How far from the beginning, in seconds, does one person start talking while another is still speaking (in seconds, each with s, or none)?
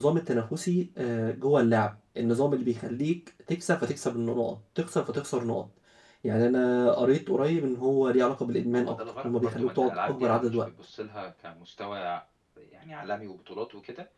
8.7 s